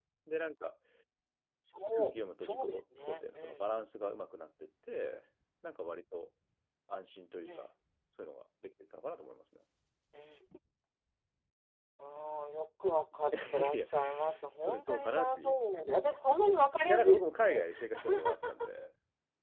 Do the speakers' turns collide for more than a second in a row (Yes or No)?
Yes